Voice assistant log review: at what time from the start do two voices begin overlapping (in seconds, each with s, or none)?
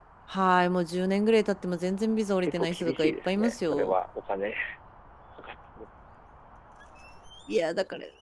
2.4 s